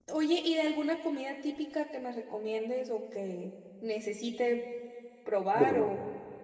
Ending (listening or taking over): listening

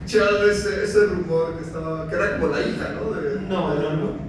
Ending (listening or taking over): taking over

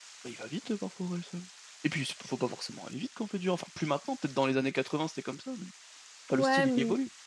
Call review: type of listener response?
taking over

